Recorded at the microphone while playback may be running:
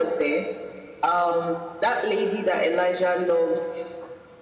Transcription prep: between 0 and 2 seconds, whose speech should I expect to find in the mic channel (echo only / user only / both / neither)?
echo only